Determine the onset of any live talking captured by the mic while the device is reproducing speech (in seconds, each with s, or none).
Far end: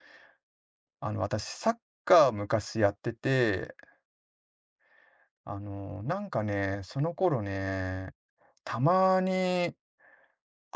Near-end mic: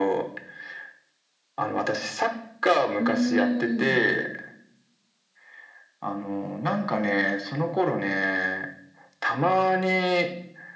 3.0 s